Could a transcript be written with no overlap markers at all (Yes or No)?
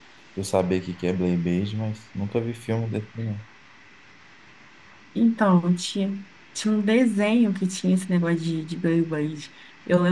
Yes